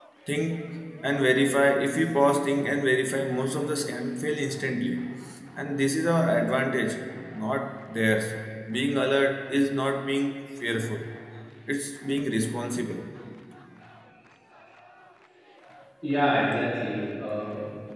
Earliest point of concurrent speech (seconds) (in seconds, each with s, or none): none